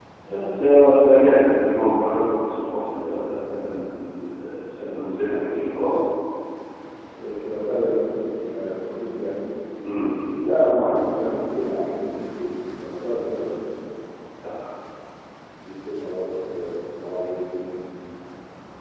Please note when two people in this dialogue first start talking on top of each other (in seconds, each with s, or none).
none